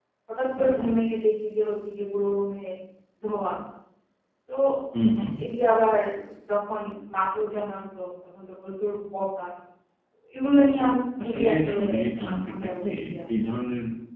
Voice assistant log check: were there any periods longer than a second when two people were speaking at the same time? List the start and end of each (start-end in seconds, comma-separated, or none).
11.2-12.9